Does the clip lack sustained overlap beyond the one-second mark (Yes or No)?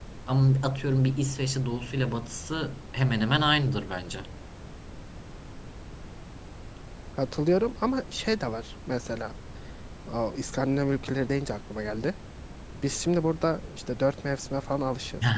Yes